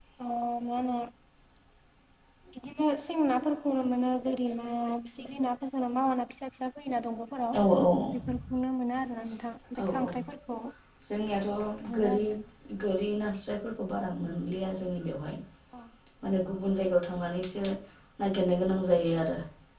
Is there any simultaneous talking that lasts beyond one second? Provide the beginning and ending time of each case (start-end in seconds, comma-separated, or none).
none